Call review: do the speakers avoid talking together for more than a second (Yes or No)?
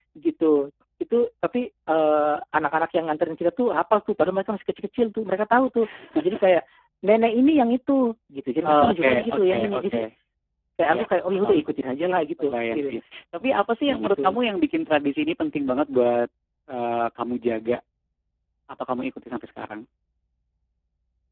No